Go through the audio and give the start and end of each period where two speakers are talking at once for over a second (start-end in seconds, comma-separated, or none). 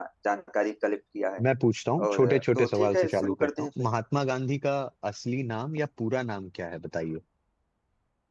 2.1-3.7